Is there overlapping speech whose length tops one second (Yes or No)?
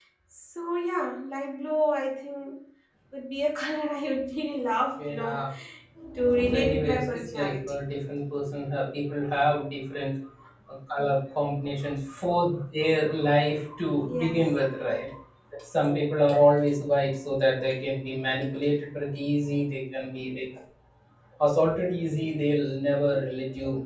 Yes